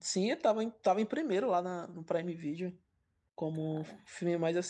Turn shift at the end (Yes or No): No